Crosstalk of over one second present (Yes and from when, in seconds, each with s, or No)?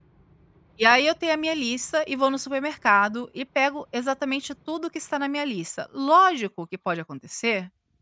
No